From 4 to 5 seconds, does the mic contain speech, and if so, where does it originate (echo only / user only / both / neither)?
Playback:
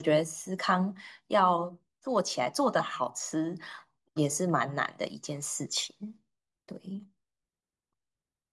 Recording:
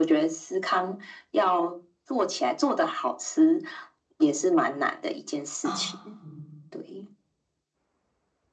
echo only